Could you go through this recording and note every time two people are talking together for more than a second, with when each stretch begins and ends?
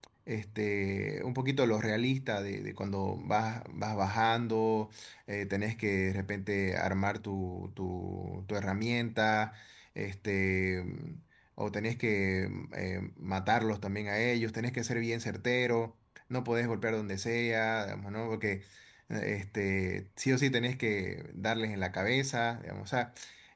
none

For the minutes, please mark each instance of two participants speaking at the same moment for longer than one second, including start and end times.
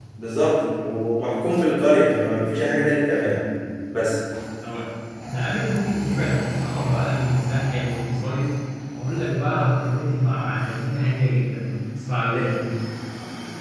none

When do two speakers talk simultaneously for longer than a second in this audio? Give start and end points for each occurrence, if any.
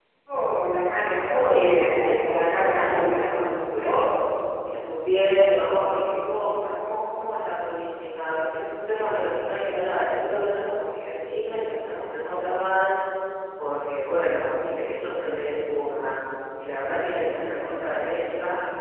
1.3-3.3

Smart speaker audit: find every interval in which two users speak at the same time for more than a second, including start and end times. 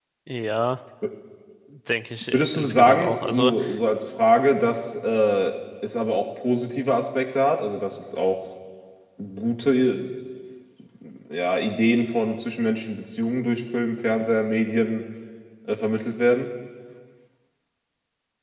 2.3-3.5

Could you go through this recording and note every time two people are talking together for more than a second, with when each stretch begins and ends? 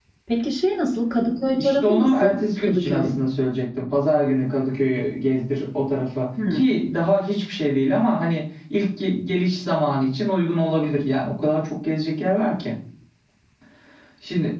1.6-3.1

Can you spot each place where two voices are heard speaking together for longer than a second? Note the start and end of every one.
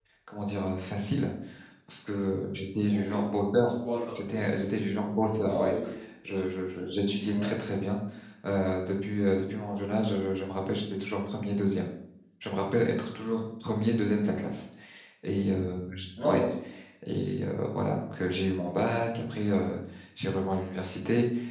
none

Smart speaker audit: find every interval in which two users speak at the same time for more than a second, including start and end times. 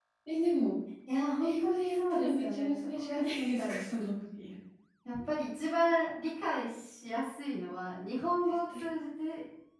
1.4-3.9

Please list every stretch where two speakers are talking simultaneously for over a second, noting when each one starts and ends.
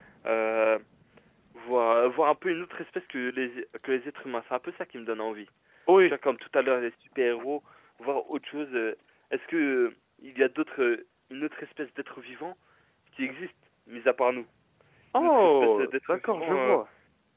15.2-16.8

